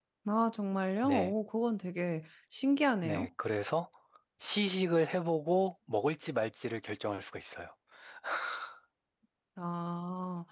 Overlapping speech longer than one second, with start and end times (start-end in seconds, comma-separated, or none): none